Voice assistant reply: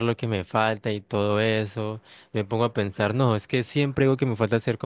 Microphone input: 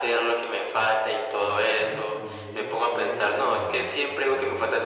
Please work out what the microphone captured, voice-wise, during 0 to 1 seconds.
echo only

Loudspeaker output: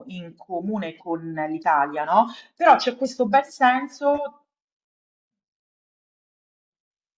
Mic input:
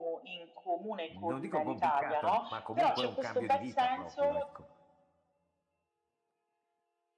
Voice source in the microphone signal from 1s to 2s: both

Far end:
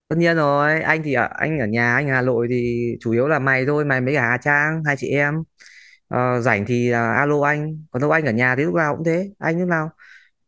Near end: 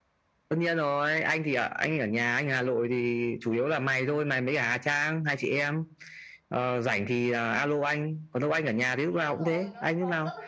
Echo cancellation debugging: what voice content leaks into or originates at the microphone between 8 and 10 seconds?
both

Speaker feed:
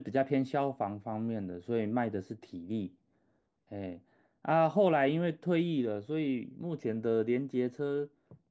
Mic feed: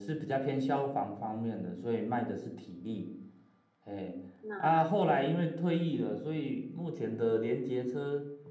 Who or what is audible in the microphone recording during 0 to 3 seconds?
echo only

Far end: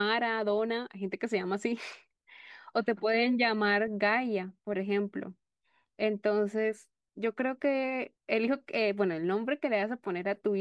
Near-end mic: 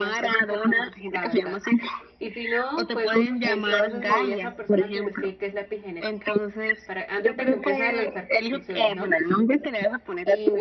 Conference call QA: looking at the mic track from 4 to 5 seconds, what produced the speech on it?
both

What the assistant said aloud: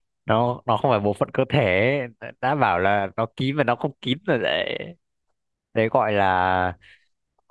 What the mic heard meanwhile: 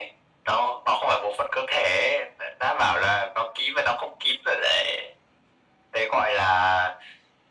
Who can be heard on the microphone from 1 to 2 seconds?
echo only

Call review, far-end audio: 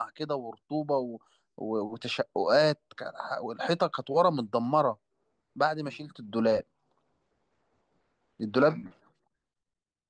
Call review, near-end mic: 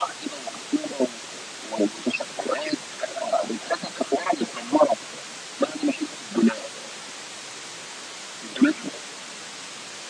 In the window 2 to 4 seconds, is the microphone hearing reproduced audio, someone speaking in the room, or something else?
echo only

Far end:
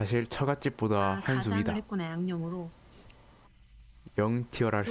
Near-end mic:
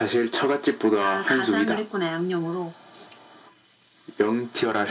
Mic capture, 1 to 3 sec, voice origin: echo only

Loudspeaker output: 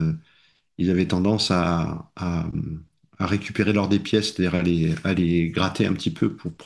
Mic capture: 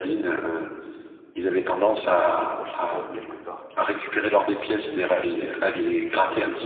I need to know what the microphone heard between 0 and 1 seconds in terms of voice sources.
echo only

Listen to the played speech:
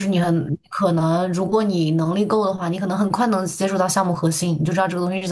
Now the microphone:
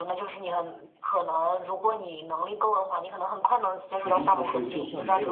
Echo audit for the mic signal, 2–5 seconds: both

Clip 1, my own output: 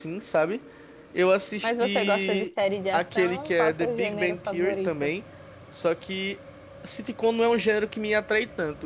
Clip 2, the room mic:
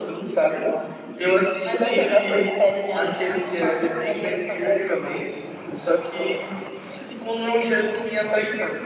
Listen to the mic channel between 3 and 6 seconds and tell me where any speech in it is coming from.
echo only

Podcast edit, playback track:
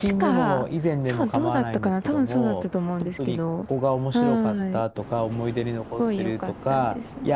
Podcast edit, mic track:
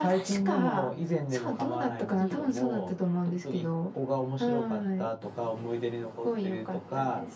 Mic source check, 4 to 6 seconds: echo only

